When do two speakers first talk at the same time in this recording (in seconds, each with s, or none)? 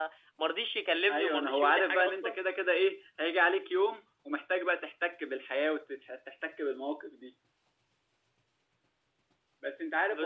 1.1 s